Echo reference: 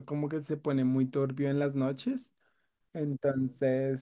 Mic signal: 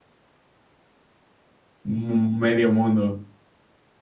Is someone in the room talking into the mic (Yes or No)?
Yes